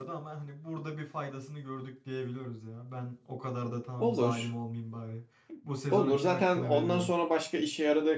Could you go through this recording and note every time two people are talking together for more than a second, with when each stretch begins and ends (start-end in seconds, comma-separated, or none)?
5.9-7.1